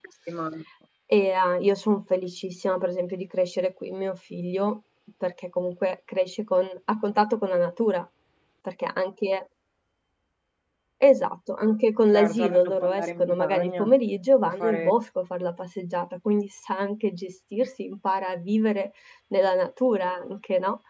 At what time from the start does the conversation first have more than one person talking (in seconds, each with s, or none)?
12.1 s